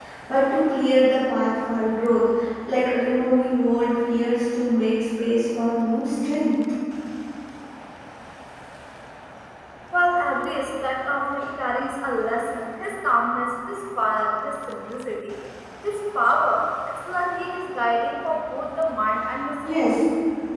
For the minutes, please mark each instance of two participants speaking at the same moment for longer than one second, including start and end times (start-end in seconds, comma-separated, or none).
none